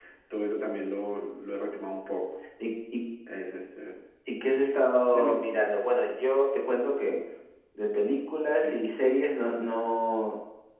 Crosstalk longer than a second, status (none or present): none